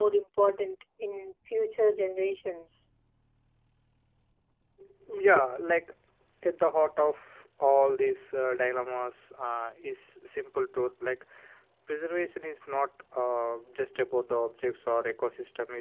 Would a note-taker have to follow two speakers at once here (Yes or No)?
No